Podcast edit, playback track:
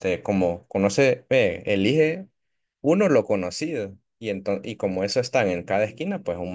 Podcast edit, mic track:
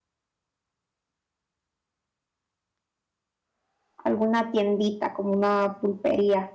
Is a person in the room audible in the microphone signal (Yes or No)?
Yes